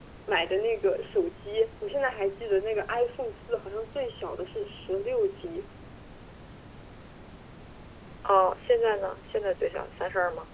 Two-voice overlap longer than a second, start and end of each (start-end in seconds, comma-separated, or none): none